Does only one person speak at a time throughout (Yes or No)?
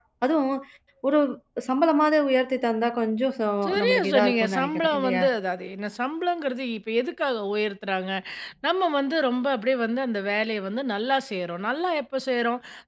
No